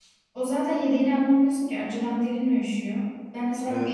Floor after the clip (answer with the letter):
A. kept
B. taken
A